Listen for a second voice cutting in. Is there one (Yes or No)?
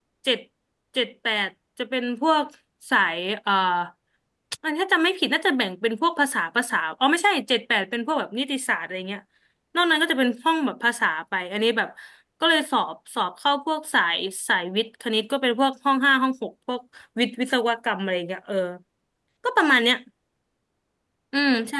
No